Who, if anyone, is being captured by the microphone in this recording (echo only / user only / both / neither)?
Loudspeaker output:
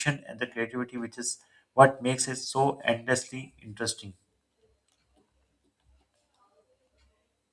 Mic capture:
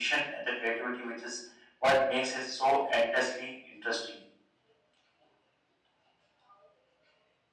echo only